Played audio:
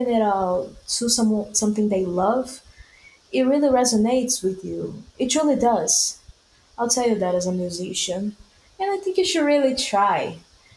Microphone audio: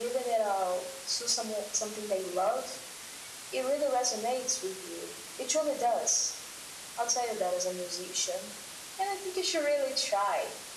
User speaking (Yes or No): No